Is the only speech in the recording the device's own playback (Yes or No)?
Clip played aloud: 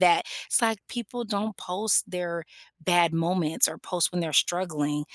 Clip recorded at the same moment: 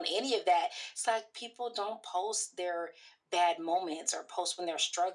Yes